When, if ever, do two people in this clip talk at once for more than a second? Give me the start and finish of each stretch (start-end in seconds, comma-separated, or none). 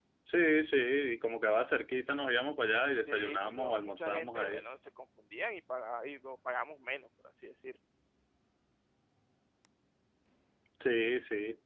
3.1-4.6